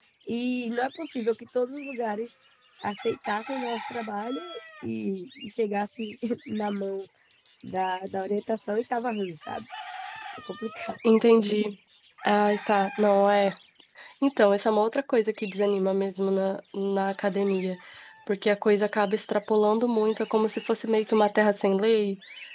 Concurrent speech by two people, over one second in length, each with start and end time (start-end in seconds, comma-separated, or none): none